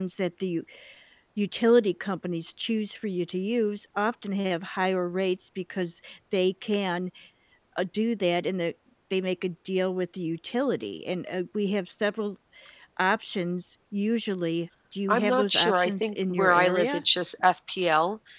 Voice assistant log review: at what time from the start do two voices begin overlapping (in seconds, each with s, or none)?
15.1 s